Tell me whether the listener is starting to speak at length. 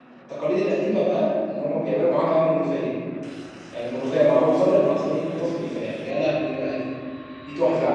Yes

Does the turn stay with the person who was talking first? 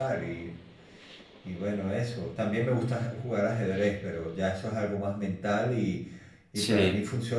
Yes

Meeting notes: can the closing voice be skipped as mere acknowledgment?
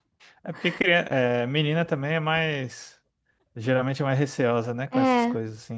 No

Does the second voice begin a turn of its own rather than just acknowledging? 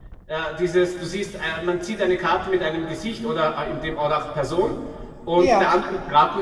No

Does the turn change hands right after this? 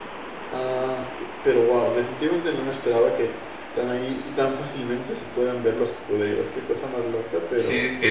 Yes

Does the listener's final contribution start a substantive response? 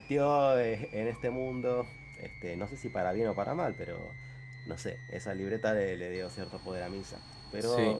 Yes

